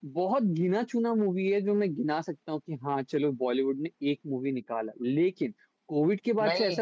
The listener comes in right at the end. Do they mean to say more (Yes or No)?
No